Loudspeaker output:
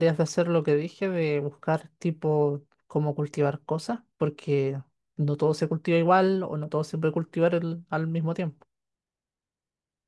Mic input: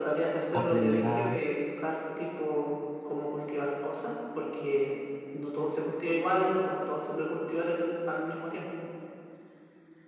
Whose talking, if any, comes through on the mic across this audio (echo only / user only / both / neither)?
both